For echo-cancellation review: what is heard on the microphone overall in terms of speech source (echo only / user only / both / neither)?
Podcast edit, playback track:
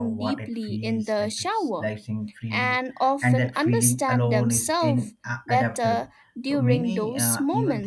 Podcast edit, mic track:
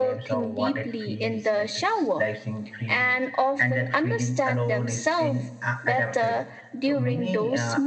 echo only